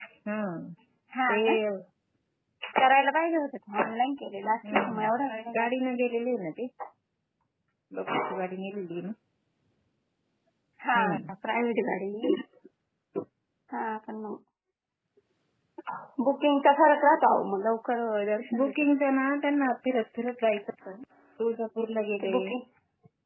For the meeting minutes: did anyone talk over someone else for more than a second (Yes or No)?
No